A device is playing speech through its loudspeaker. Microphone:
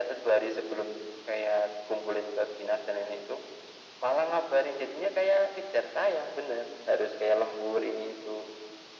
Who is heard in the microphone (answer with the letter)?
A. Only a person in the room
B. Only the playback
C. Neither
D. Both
B